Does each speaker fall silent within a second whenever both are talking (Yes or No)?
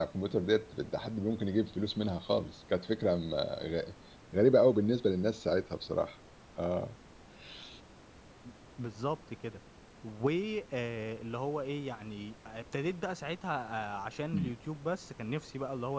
Yes